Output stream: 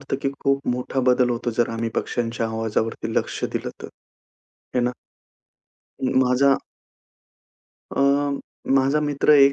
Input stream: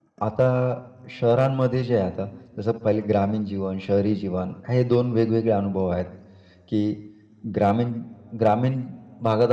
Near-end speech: present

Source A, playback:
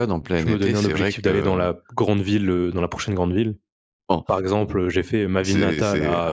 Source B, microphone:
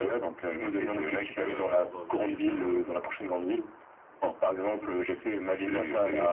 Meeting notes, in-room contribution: present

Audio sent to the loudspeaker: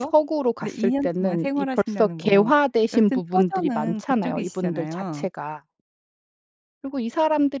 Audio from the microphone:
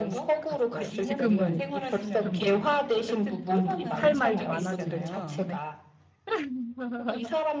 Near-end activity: present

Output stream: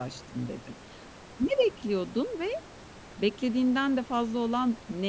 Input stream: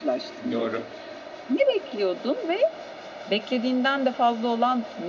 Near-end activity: present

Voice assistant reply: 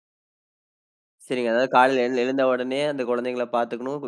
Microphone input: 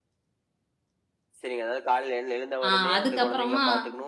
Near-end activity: present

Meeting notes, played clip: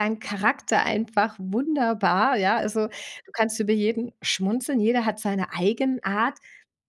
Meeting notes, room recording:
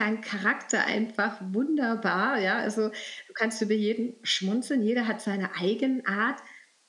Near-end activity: none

